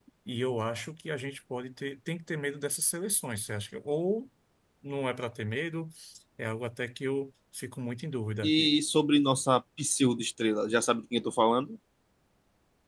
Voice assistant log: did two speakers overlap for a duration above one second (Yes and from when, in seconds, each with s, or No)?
No